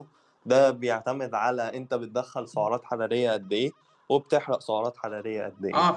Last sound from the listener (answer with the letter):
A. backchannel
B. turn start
B